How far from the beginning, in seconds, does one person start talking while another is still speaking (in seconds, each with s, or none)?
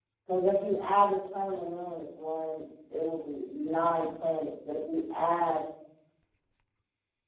none